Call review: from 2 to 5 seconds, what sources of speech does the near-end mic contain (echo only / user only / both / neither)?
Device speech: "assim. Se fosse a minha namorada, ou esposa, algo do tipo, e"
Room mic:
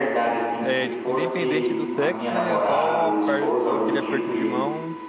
both